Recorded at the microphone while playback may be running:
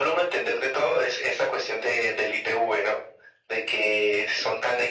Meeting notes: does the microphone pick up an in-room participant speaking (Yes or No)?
No